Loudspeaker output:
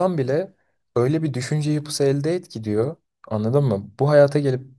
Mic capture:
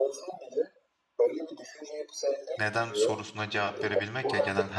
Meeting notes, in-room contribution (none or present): present